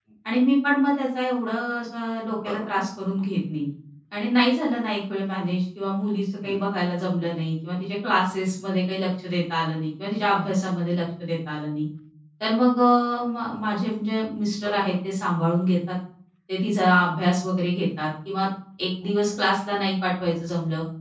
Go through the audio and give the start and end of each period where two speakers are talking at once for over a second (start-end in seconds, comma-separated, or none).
none